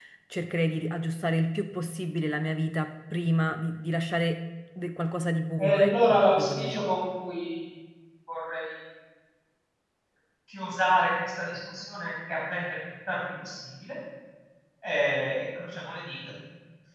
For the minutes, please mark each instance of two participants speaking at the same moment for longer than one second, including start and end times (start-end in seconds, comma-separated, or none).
5.6-6.8